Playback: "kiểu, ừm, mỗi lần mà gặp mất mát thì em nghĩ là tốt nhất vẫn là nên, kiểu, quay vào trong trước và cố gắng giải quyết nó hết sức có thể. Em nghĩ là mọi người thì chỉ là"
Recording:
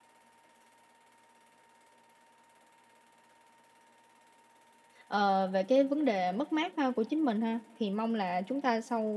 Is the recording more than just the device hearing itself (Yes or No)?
Yes